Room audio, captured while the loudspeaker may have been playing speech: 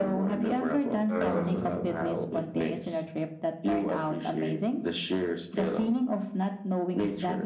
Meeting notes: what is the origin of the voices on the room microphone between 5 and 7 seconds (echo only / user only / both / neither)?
echo only